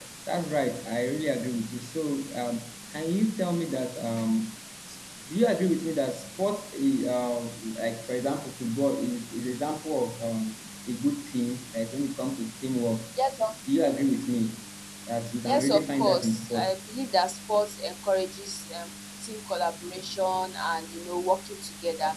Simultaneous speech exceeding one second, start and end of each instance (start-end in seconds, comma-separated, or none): 15.4-16.7